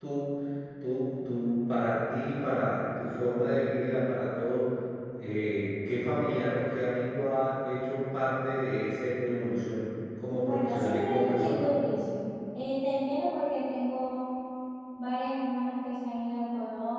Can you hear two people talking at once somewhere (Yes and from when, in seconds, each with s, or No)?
Yes, from 10.4 s